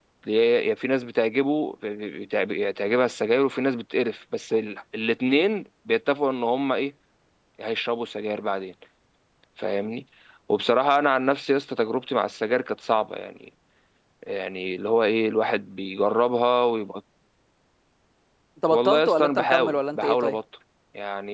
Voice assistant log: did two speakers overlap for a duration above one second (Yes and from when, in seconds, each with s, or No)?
Yes, from 18.7 s